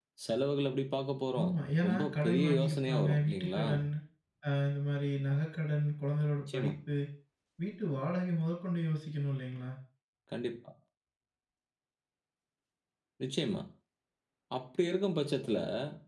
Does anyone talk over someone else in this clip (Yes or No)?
Yes